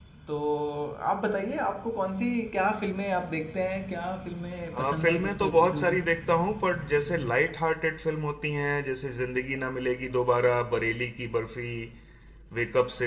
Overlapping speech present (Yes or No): Yes